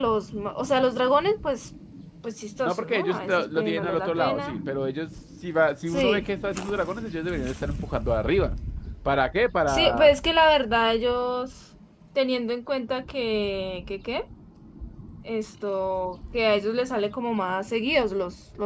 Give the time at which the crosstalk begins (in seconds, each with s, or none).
2.6 s